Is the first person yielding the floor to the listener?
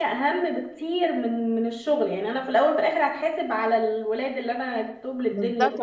Yes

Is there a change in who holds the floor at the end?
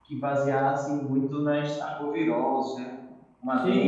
Yes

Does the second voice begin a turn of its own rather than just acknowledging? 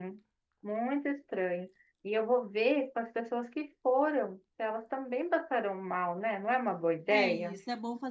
Yes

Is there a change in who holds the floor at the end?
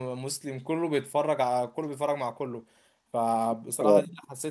No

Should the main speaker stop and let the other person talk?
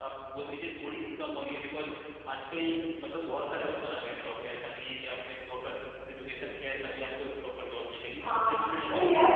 Yes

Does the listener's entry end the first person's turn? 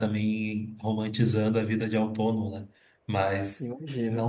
No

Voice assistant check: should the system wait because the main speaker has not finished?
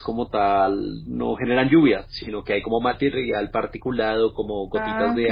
Yes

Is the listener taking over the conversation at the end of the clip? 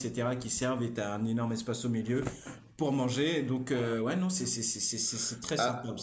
Yes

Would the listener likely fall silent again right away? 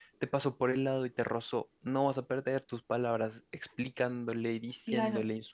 No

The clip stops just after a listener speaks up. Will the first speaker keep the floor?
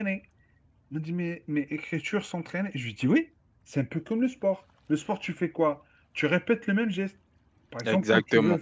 Yes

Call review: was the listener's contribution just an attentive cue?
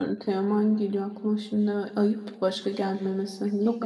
No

